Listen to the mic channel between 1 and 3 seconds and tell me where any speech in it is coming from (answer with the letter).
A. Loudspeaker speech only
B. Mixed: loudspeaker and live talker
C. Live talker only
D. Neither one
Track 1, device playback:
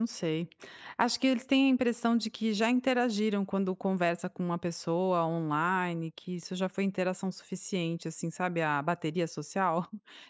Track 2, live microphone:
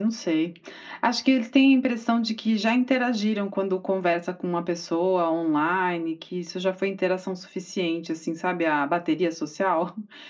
A